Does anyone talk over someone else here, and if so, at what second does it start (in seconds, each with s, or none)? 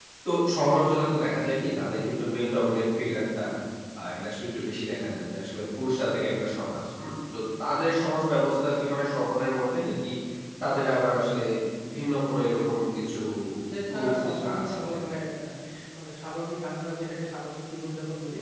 13.9 s